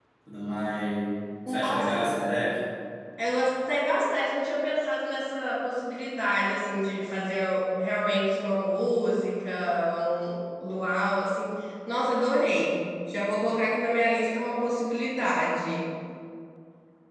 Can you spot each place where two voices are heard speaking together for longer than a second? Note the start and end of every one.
none

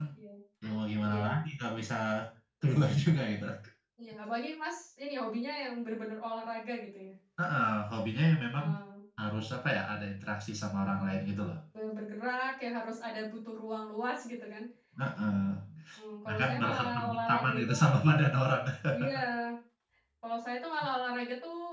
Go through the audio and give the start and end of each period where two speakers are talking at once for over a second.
16.3-17.7

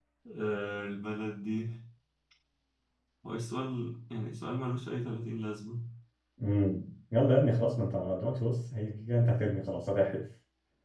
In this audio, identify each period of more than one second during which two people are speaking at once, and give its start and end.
none

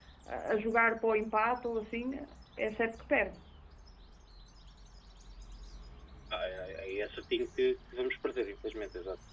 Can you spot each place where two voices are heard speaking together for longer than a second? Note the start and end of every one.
none

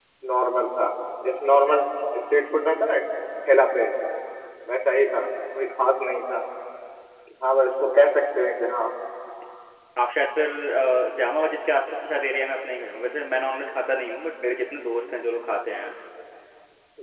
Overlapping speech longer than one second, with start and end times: none

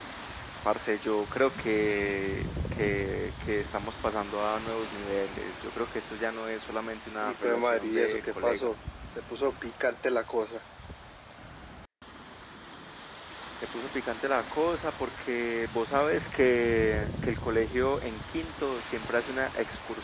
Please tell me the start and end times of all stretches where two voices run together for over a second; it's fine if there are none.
7.2-8.7

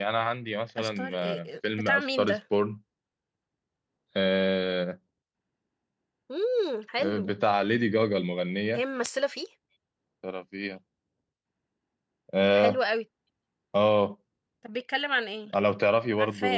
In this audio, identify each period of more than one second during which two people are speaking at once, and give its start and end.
0.8-2.4

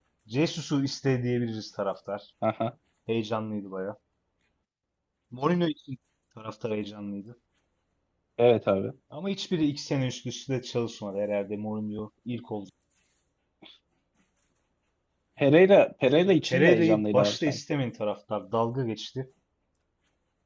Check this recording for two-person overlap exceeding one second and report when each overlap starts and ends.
16.3-17.6

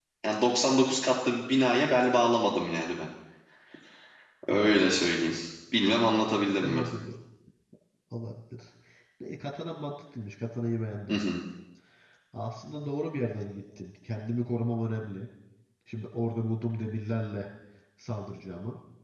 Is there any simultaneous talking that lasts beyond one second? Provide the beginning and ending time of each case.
none

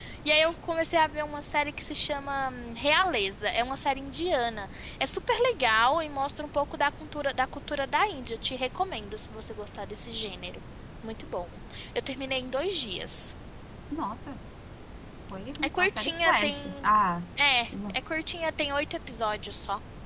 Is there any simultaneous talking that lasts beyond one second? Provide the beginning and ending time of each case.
15.6-16.9

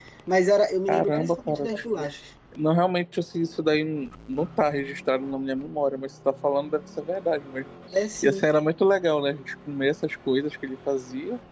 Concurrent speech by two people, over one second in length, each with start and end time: 0.9-2.1

